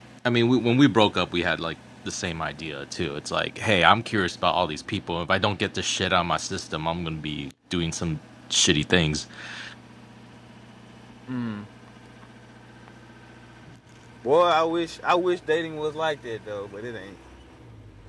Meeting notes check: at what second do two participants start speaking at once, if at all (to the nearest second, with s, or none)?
none